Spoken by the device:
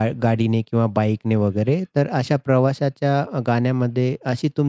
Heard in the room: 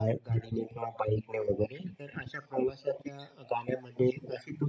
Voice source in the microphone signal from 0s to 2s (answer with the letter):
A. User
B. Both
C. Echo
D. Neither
C